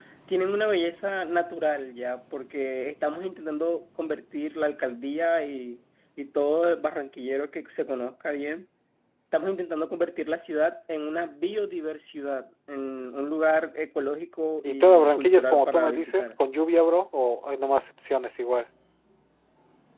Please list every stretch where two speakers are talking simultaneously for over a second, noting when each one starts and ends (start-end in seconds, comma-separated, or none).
14.6-16.3